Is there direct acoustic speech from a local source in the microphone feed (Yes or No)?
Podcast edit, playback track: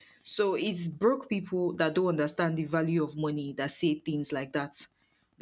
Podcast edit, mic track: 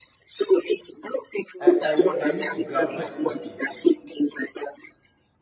Yes